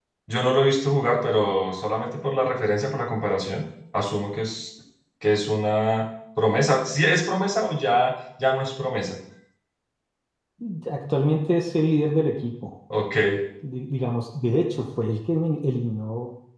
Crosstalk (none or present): none